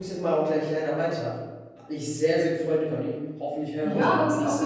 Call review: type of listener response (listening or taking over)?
taking over